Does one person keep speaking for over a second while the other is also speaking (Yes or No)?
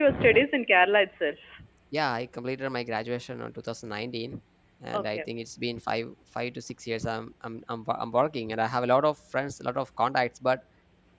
No